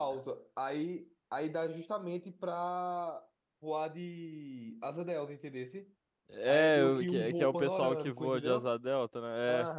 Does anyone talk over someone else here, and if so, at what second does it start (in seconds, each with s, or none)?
6.5 s